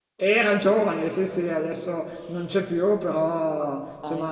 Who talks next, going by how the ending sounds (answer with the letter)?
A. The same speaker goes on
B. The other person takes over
A